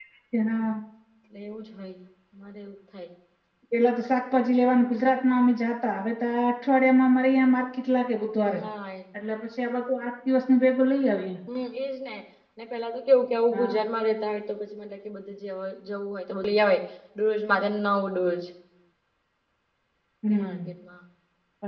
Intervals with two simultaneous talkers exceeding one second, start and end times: none

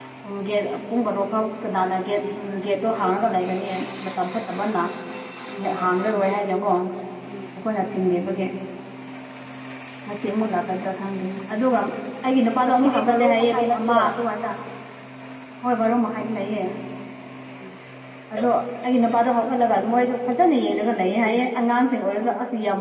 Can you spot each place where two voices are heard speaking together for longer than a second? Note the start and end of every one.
12.6-14.0

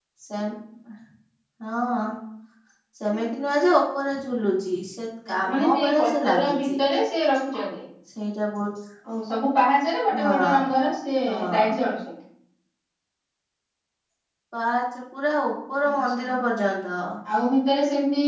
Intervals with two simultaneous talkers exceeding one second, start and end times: 5.4-6.7

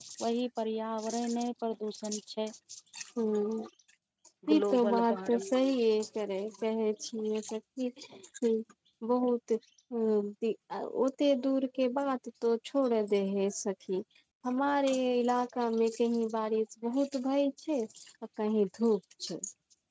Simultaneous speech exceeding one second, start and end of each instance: 4.5-5.7

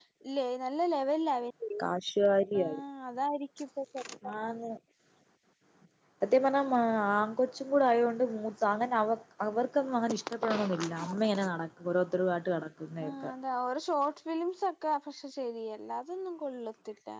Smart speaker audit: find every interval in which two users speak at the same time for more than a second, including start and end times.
none

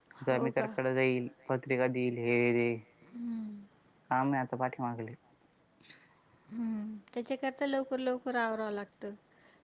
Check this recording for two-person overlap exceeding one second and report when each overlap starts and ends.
none

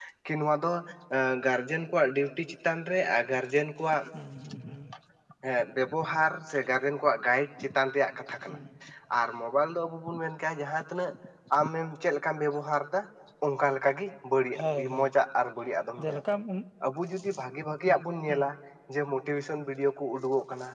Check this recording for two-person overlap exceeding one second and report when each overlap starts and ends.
none

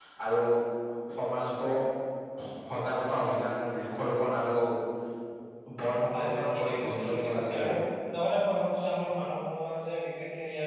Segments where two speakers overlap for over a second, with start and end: 6.1-7.7

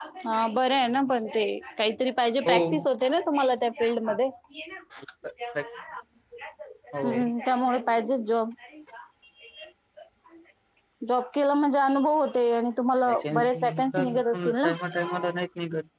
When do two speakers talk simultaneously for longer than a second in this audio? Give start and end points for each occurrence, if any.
13.1-14.7

